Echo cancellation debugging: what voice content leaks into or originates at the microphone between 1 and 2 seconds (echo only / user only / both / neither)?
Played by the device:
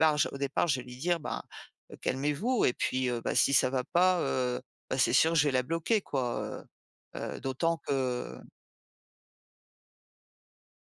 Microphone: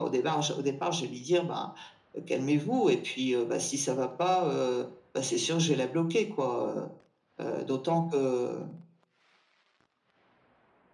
echo only